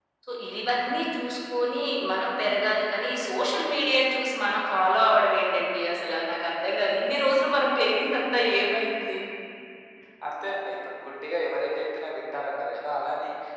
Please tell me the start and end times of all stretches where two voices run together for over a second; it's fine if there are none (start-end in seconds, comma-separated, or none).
none